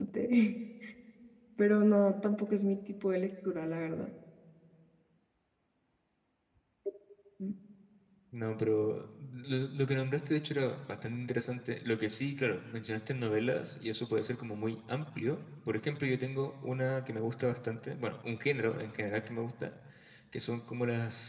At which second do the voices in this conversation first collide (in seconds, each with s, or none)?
none